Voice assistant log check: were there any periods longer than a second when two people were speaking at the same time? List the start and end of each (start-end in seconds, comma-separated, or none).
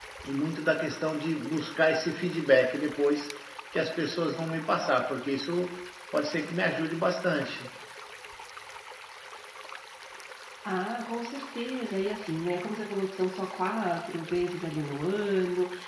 none